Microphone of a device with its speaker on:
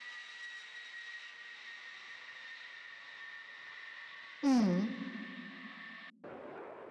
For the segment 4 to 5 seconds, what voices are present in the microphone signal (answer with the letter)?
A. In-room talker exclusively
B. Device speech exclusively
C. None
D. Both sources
A